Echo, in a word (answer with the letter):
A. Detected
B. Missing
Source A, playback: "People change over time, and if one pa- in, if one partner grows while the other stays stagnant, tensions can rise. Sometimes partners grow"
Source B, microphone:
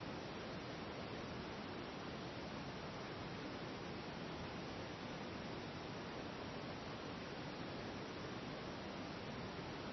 B